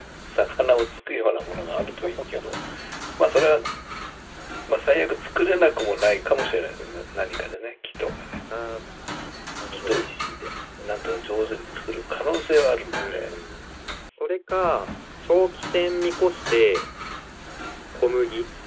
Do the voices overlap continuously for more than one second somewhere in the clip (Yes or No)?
No